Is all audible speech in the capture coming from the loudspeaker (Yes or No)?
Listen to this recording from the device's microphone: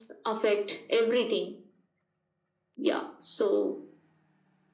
Yes